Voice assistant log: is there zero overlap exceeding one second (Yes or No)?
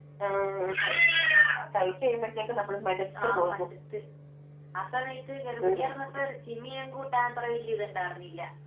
Yes